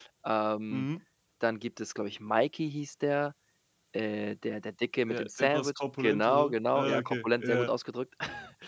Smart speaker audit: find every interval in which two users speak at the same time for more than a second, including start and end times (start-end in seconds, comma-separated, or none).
5.1-7.7